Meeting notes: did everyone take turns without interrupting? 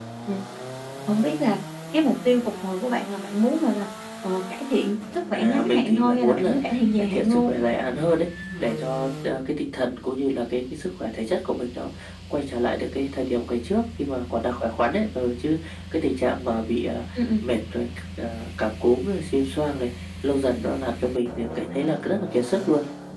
No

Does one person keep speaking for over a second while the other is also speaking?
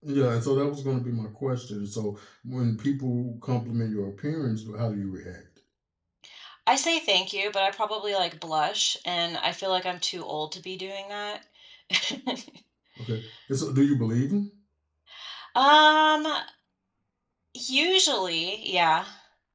No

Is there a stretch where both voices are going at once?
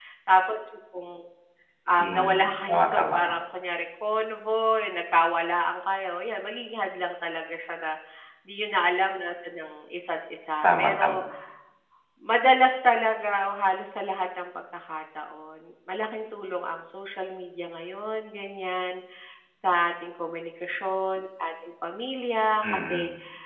Yes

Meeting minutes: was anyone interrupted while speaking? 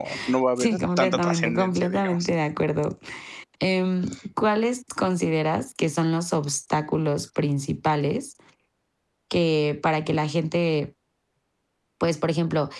Yes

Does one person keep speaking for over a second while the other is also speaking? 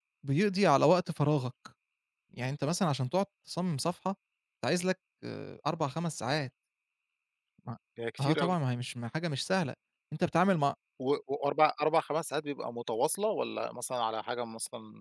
No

